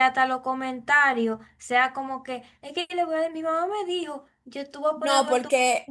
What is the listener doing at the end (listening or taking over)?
taking over